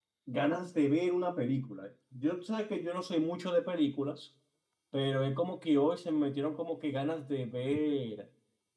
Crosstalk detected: No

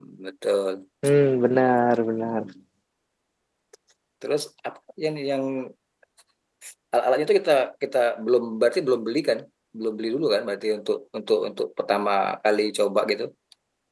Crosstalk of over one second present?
No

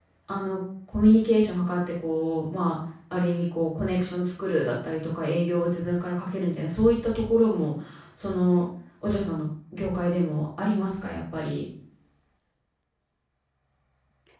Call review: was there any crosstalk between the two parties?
No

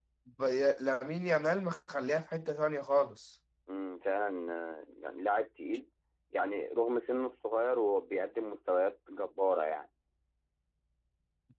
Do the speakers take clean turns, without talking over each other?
Yes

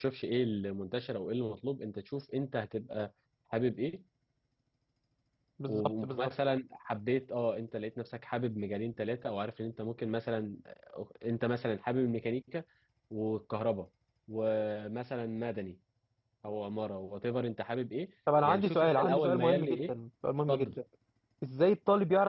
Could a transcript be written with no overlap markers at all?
No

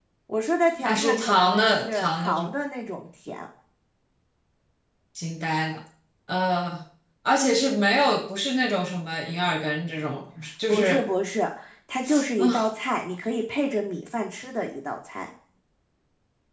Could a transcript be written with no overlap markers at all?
No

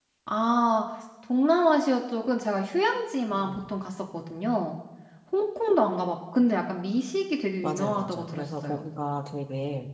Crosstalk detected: Yes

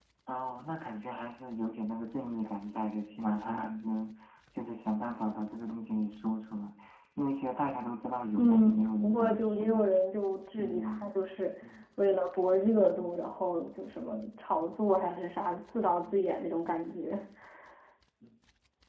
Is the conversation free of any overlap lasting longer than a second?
No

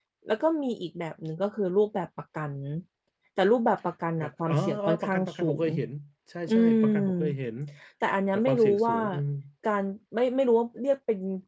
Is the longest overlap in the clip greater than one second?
Yes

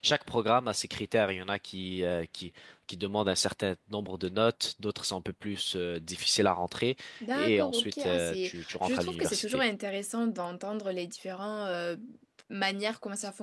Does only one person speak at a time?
No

